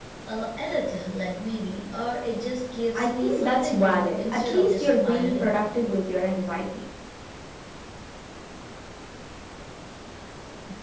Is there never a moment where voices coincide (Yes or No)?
No